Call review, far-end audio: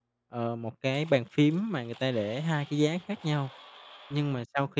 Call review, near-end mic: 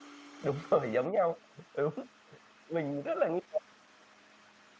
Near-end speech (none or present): present